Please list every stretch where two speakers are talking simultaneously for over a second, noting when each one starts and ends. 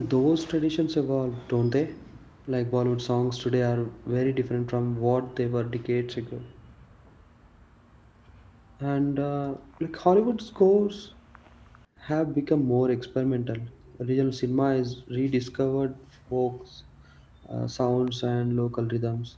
none

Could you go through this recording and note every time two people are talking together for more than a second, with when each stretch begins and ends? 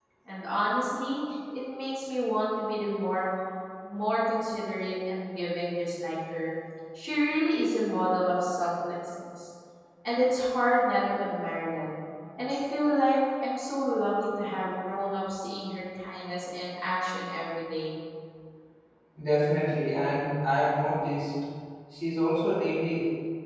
none

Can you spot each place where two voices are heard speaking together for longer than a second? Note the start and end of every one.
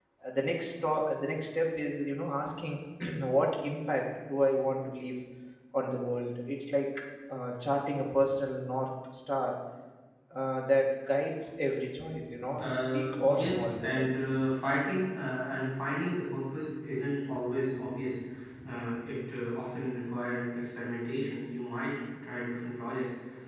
12.6-14.0

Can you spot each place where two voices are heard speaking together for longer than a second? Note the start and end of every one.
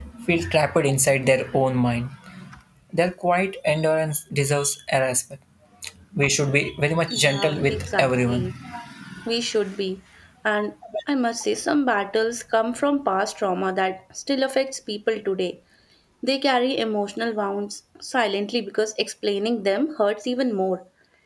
7.1-8.5

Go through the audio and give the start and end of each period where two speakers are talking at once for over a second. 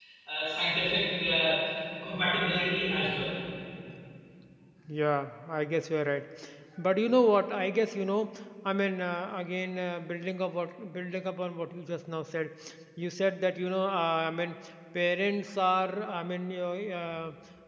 none

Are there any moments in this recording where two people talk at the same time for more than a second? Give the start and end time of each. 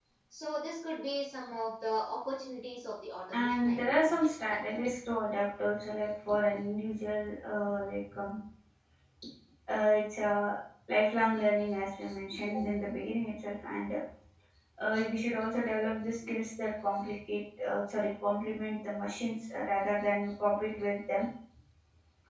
3.3-4.6

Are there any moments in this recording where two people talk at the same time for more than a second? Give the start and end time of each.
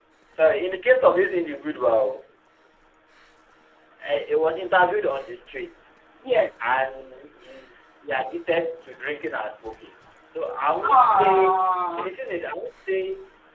10.8-12.1

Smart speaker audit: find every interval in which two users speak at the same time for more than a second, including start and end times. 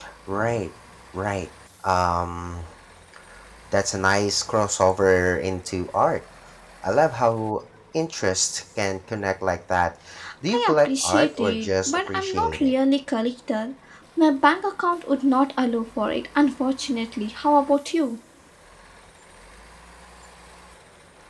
10.5-12.7

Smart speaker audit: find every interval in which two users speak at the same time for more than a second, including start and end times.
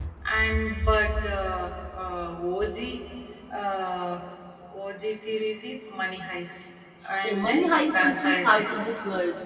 7.2-8.8

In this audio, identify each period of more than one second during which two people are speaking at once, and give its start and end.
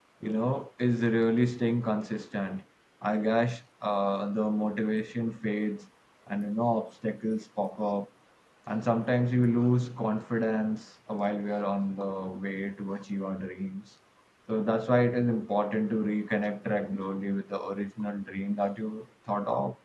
none

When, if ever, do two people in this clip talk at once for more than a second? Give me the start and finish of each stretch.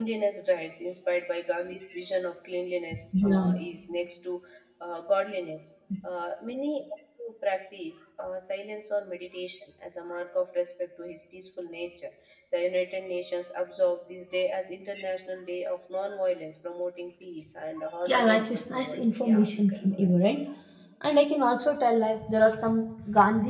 18.0-20.1

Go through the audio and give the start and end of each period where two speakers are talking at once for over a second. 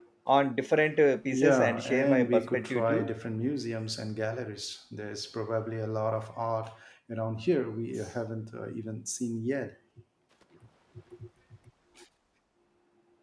1.3-3.1

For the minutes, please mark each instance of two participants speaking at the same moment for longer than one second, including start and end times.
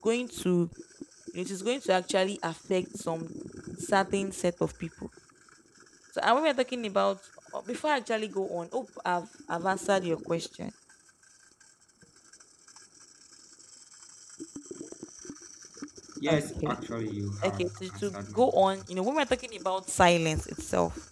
17.4-18.7

